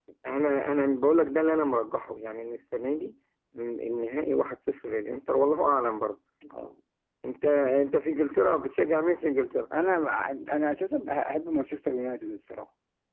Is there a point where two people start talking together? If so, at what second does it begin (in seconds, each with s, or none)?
none